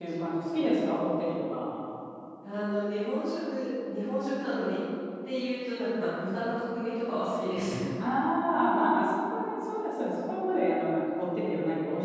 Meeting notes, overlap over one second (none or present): none